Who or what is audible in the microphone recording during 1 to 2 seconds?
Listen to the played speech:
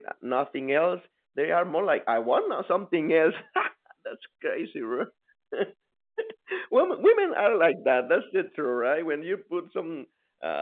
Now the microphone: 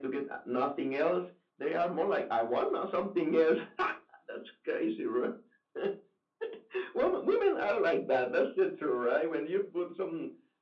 echo only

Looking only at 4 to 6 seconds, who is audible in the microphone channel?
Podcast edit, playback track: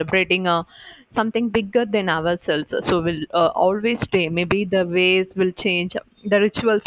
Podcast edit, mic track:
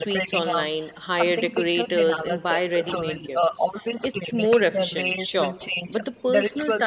both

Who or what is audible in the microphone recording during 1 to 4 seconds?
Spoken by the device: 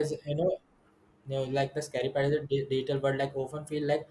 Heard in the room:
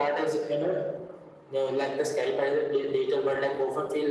echo only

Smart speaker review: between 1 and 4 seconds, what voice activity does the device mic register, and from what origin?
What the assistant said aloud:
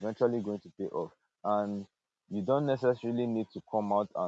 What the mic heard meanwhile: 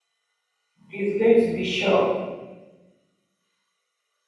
user only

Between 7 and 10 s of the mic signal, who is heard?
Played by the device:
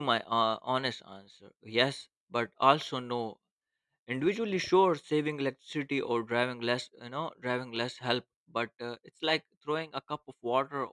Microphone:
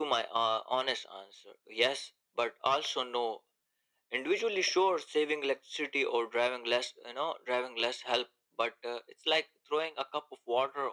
echo only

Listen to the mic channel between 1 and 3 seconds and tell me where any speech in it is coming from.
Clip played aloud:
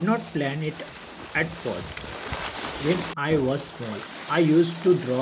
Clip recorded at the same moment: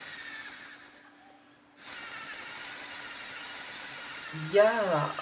neither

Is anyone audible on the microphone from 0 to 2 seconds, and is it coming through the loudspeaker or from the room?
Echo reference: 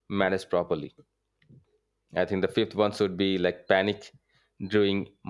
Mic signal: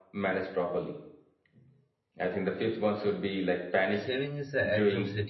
echo only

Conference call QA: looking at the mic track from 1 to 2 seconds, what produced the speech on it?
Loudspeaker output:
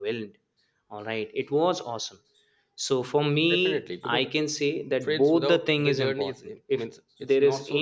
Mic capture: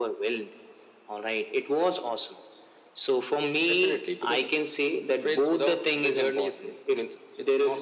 echo only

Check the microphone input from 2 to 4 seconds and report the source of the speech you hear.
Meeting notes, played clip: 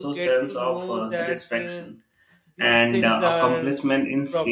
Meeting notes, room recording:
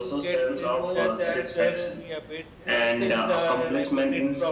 both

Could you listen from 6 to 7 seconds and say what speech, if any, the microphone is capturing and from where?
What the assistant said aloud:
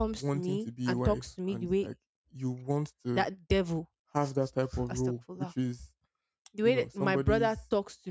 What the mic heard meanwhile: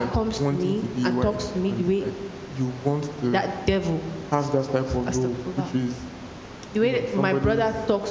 echo only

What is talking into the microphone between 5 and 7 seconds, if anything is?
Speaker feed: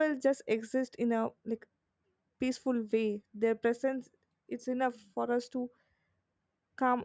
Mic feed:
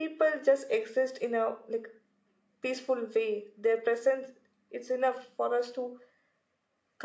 echo only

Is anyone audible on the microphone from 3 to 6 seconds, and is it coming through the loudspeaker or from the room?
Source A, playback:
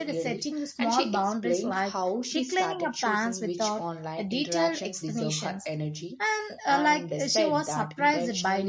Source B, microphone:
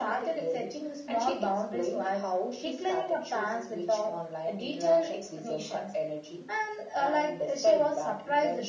echo only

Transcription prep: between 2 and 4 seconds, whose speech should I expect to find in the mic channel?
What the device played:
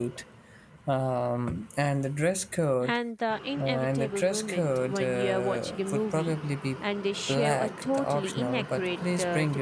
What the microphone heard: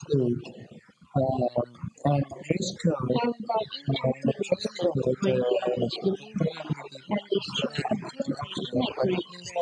echo only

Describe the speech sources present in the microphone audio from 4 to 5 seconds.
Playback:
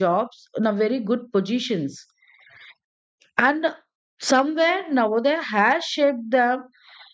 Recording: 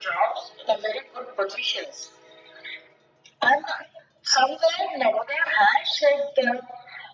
echo only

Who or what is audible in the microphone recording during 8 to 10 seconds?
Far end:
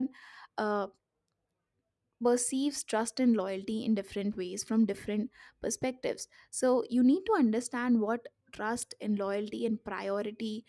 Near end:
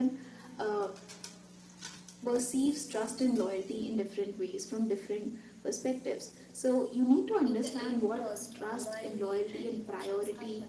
both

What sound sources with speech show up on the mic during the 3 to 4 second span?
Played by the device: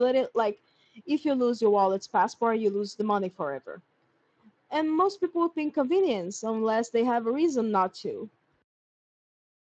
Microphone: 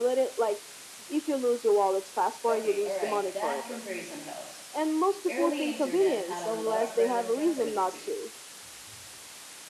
both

